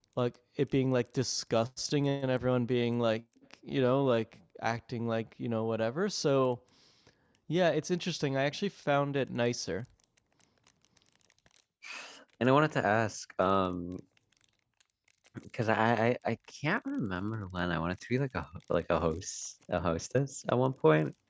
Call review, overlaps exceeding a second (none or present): none